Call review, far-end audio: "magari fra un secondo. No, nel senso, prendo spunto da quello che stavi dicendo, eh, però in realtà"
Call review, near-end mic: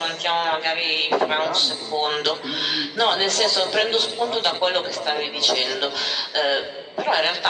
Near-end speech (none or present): present